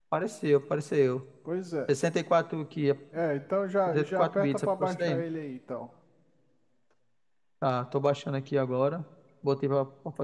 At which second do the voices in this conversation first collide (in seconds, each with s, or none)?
3.9 s